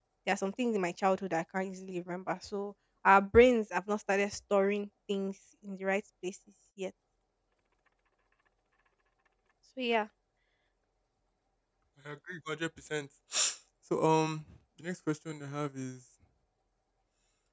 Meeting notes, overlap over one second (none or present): none